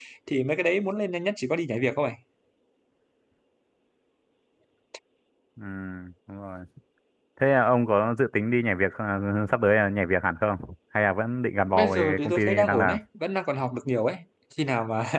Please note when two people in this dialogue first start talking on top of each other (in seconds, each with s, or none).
11.7 s